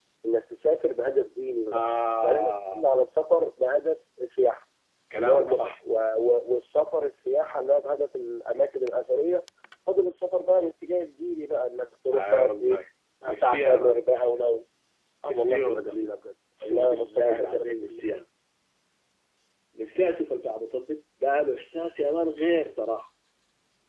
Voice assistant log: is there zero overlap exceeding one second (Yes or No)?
No